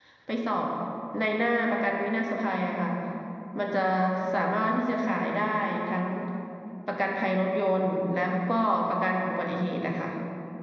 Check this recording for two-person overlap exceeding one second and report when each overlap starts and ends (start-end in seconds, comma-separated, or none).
none